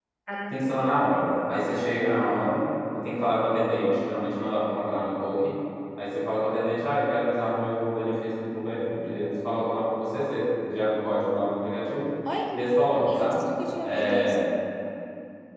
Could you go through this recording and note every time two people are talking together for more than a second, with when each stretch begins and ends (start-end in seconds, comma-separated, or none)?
none